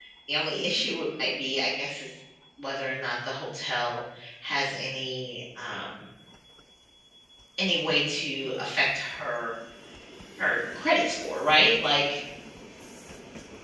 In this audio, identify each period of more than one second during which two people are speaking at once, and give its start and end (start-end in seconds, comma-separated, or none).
none